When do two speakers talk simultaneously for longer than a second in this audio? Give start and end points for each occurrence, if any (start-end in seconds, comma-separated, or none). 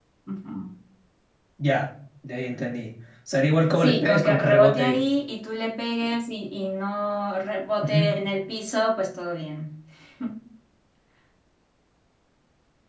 3.8-5.0